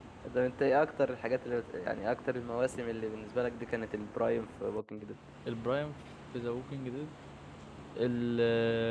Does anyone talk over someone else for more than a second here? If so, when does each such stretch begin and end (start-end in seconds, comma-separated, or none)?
none